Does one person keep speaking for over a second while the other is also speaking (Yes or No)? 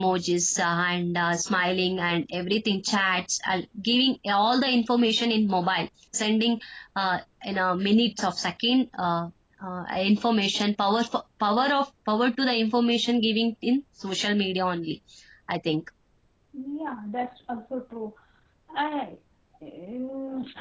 No